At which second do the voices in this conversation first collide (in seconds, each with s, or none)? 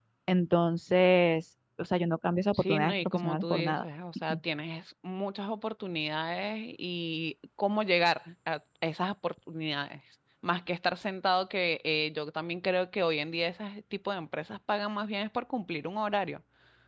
2.5 s